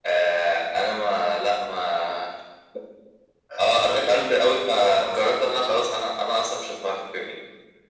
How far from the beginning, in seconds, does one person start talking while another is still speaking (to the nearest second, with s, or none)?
4 s